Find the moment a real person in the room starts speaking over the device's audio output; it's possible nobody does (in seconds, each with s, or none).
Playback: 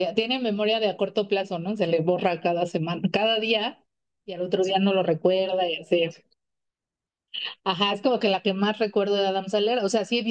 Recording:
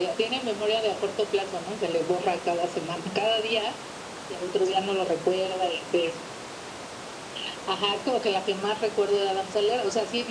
none